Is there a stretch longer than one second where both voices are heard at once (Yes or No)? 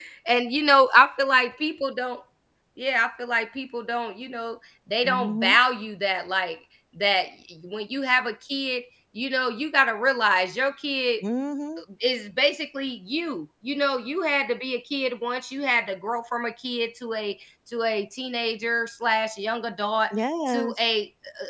No